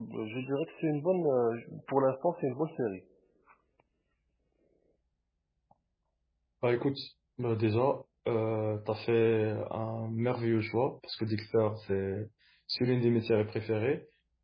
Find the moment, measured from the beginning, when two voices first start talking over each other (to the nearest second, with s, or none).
none